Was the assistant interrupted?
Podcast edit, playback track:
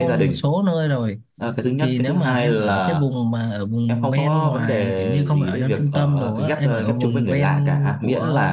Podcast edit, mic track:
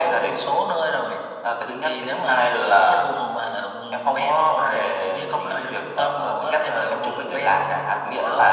No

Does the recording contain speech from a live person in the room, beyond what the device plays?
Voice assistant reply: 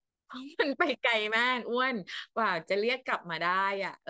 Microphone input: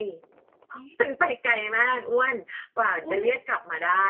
Yes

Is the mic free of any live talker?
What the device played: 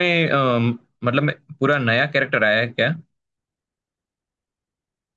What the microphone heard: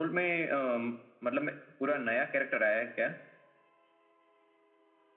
Yes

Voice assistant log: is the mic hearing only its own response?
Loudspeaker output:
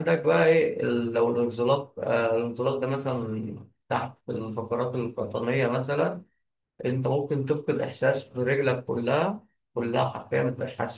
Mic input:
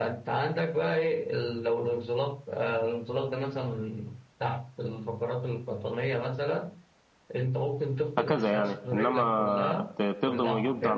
No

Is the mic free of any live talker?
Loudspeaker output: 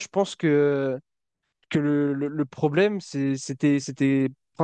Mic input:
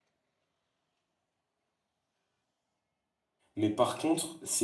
No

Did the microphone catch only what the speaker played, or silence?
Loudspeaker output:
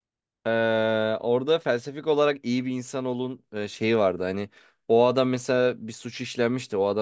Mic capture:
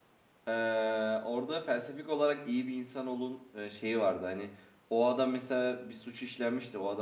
Yes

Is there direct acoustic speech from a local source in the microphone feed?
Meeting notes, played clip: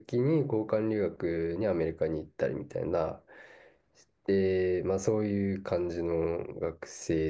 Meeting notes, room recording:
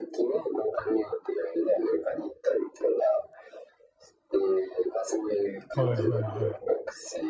Yes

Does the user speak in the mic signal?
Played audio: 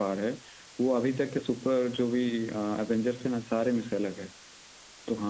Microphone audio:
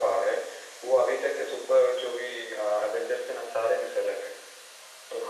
No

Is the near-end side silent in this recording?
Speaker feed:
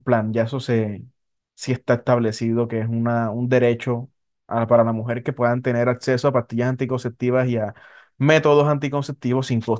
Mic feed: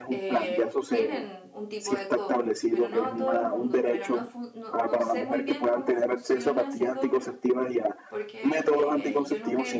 No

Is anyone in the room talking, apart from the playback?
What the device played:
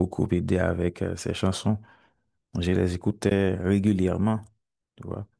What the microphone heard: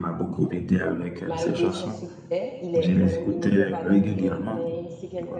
Yes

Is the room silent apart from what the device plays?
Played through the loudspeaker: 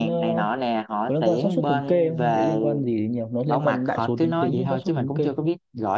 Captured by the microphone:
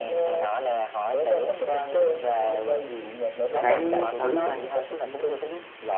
No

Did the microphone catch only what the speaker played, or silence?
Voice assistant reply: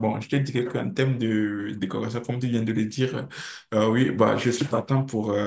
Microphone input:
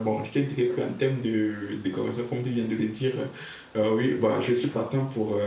Yes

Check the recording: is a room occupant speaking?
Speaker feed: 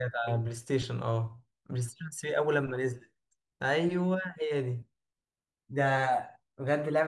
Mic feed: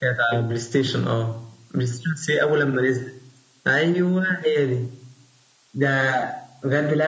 No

